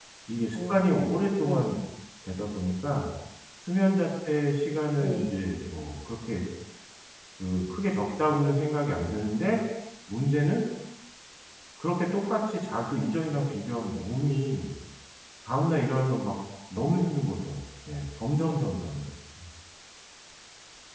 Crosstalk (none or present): present